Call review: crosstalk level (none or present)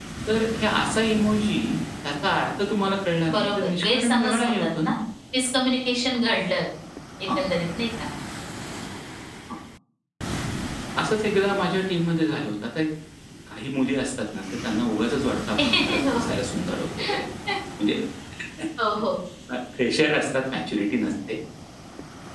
present